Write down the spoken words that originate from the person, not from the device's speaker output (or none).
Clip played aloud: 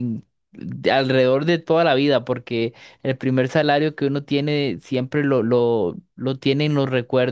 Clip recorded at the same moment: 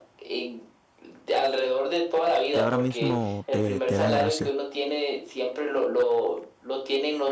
que ahora mismo te, te da gracia?